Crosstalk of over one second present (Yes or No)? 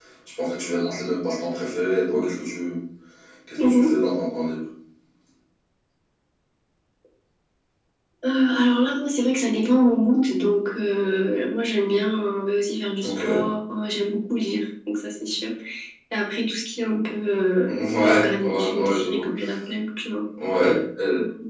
Yes